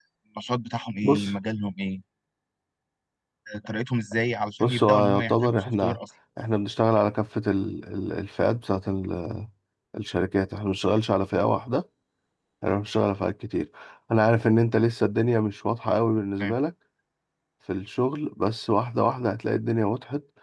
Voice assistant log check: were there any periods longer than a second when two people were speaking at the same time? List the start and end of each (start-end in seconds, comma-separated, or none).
4.6-6.0